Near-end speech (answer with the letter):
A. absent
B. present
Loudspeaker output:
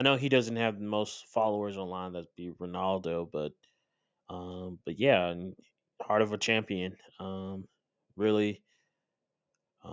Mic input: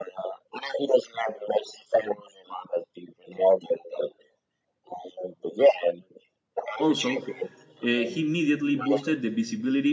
B